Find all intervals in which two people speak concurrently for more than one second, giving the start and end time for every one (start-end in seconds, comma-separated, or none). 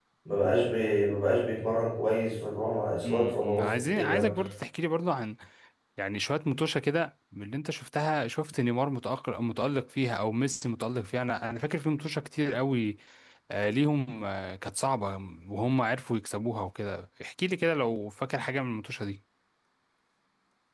3.1-4.3